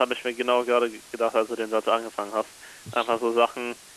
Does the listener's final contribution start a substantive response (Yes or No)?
No